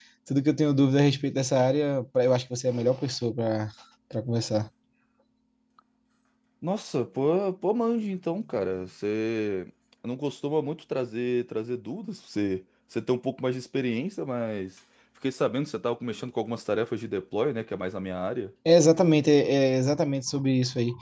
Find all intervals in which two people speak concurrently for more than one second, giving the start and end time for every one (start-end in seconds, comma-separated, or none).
none